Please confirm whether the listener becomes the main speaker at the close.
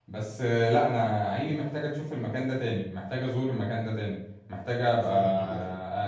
No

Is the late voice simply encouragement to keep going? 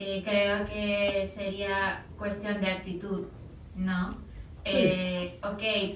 Yes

